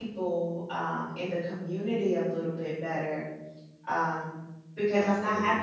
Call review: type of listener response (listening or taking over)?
listening